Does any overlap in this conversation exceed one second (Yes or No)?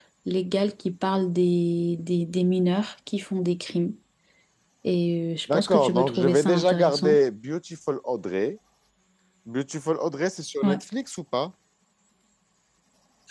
Yes